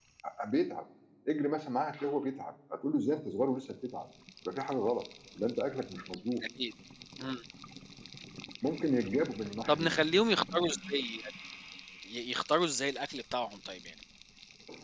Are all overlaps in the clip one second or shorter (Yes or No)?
Yes